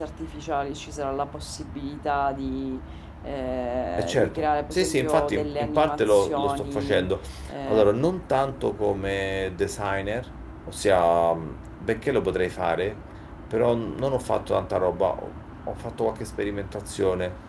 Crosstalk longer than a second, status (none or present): present